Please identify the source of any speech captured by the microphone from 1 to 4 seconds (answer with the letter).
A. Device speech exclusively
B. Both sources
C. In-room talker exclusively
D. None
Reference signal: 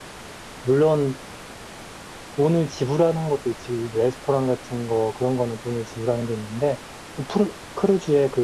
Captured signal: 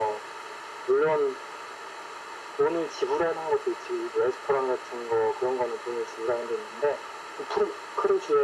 A